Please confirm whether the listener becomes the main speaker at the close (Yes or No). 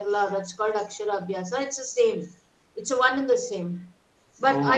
No